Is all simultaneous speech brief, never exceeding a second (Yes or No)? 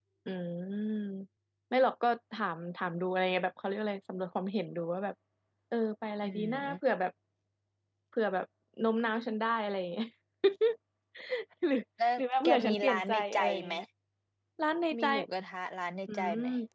No